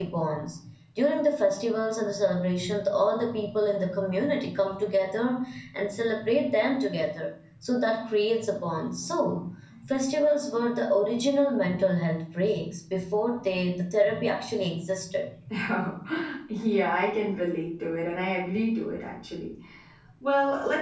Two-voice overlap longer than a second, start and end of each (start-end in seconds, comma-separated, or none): none